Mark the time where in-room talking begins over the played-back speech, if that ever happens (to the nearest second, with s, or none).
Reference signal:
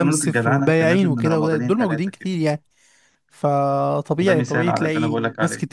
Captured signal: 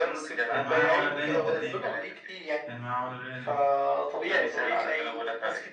1 s